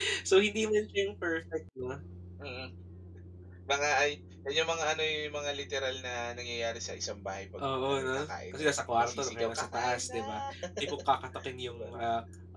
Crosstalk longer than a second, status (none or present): present